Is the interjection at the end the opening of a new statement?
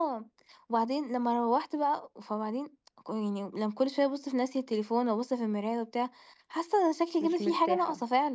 No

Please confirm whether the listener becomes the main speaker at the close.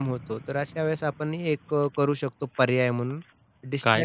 No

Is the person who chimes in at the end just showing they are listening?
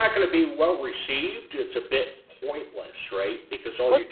No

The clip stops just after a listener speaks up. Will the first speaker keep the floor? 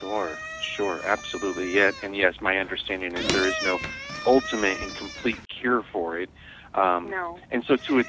Yes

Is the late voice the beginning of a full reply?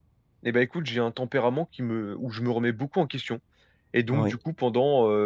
No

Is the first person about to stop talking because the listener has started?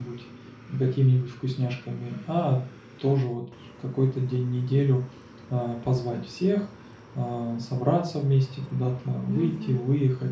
No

